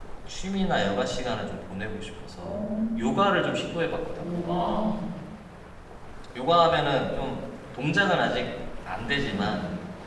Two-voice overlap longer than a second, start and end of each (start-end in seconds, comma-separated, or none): none